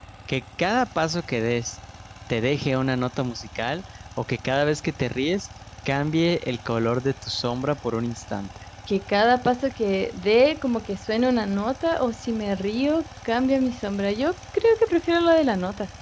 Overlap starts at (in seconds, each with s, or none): none